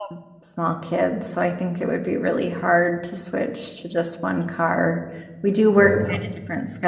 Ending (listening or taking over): listening